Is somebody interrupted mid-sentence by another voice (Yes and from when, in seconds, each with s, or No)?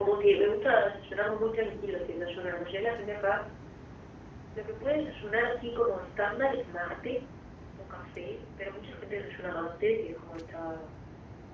No